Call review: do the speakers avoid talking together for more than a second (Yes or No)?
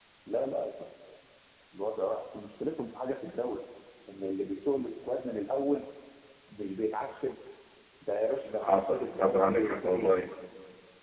No